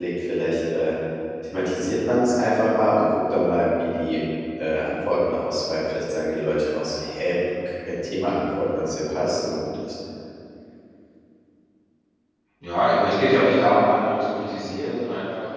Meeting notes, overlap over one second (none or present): none